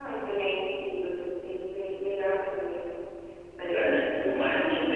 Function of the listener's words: taking over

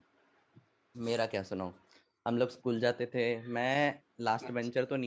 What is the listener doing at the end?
listening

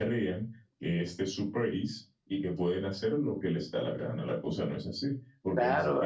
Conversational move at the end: taking over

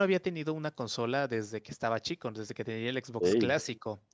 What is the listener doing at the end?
listening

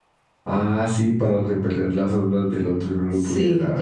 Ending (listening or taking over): taking over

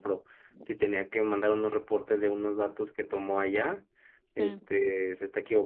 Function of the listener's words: listening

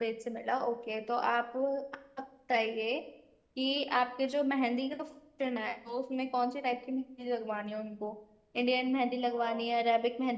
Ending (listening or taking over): listening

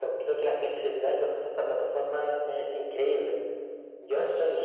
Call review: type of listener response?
listening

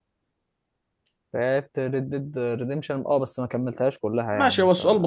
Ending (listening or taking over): taking over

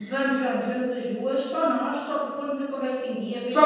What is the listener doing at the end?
listening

